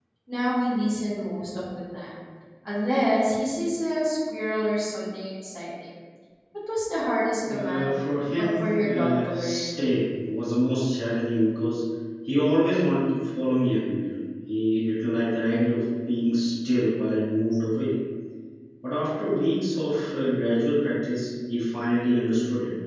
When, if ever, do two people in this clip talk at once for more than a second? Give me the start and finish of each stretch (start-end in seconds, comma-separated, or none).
8.4-9.8